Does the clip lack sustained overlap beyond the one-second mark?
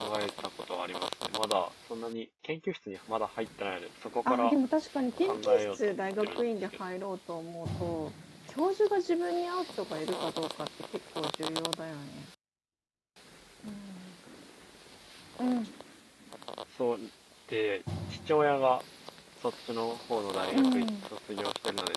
No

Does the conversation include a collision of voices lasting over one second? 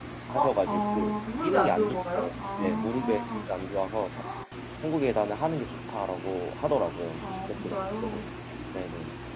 Yes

